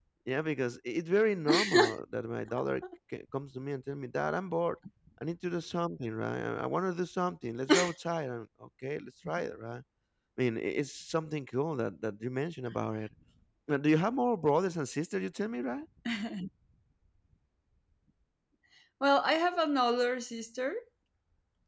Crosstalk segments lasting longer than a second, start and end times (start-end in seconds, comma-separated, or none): none